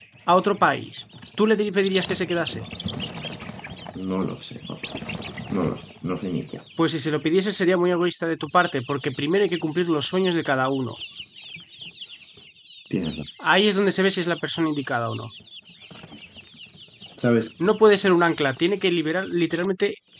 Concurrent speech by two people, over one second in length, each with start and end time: none

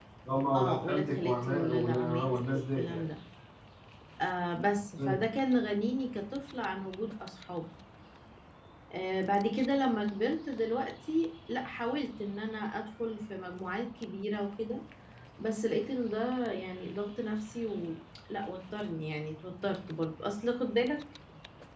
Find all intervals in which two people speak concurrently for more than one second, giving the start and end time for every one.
0.5-3.0

